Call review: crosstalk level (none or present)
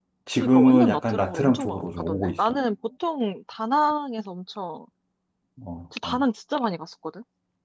present